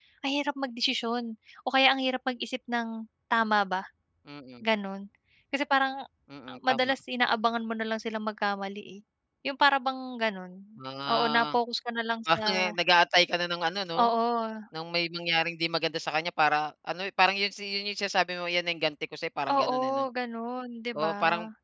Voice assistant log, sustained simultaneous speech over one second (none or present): none